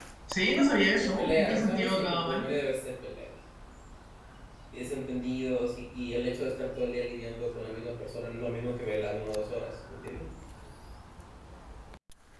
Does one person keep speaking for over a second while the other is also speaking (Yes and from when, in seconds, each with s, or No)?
Yes, from 0.8 s